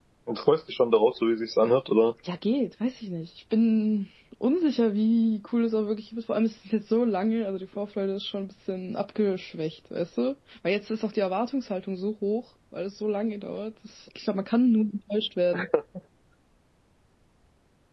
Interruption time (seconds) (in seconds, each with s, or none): none